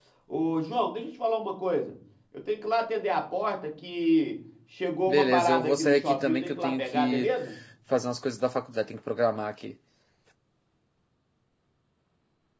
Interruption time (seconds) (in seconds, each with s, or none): 5.1 s